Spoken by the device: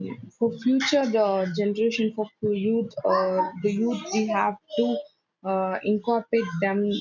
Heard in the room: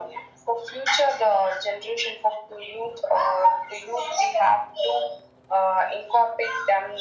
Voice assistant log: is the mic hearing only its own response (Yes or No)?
Yes